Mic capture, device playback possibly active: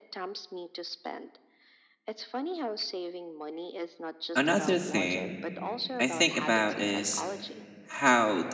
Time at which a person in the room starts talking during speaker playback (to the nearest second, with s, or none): 4 s